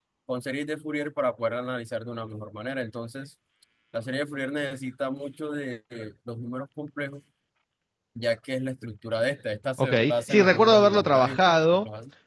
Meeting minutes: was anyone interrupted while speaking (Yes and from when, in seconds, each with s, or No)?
Yes, from 9.8 s